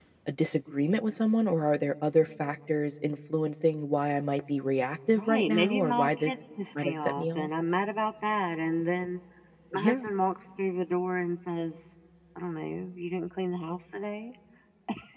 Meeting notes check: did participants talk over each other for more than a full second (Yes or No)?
Yes